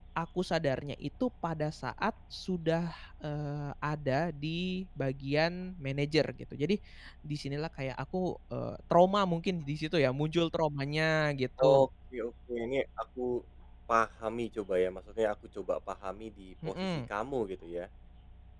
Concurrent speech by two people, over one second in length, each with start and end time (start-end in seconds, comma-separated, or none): none